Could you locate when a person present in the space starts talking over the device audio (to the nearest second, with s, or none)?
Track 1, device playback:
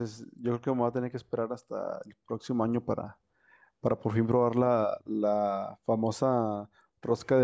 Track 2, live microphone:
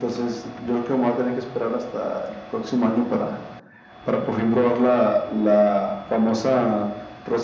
none